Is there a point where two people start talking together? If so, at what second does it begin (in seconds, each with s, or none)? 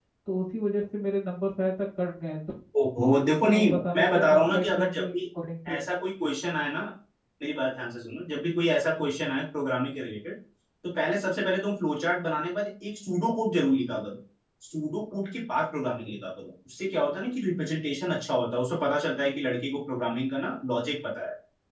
3.5 s